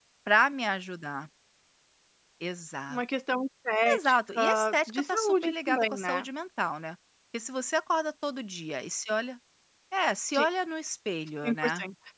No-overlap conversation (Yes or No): No